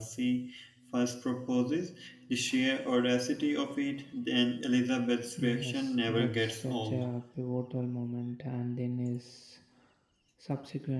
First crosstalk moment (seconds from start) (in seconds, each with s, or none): 5.4 s